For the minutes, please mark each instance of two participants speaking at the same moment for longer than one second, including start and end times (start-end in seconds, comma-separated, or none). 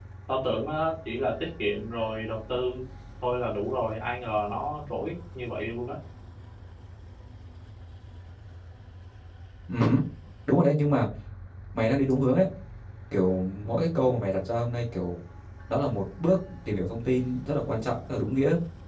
none